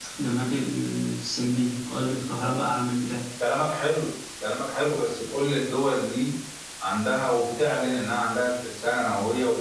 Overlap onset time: none

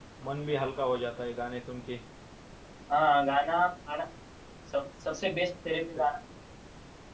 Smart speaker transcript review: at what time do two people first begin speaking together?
none

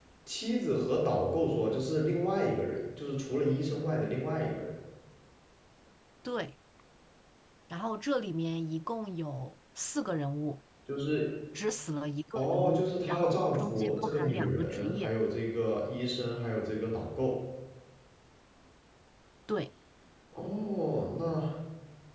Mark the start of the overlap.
12.3 s

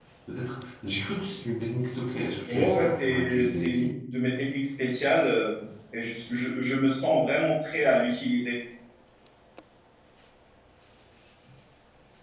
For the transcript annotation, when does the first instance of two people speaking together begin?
2.5 s

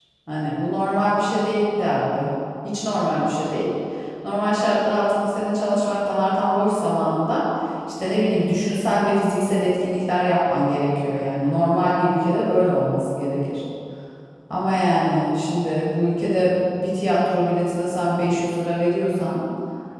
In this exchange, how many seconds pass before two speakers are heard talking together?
none

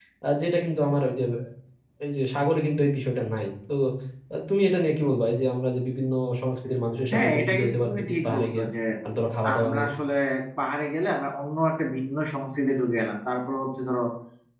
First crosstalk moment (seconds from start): 7.1 s

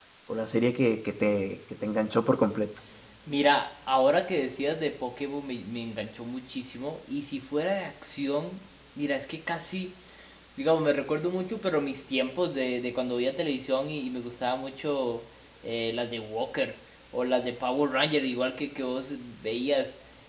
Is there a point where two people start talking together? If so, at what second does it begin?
none

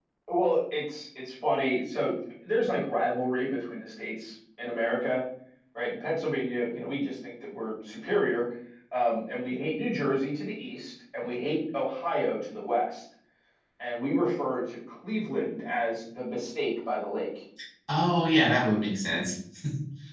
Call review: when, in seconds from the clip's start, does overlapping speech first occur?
none

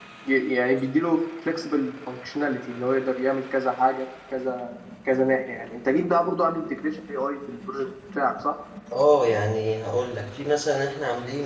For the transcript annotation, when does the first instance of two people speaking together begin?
none

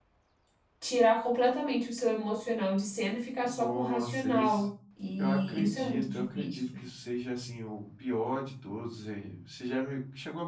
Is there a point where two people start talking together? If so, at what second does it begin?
3.4 s

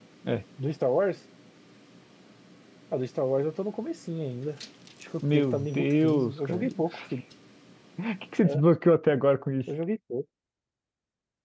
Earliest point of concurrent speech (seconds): 5.2 s

